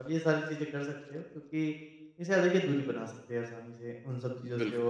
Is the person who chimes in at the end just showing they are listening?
Yes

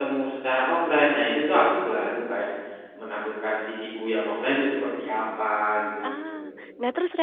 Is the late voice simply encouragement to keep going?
No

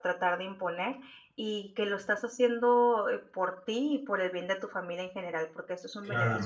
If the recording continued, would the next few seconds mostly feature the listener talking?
Yes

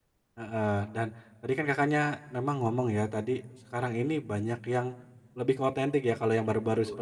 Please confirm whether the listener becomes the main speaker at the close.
No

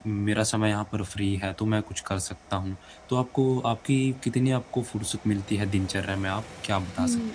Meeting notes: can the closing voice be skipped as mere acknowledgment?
No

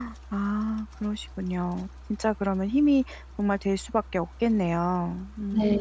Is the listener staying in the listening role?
No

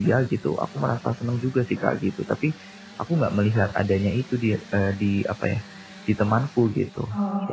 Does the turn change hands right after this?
Yes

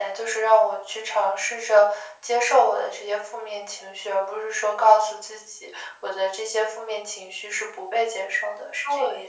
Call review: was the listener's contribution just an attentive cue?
No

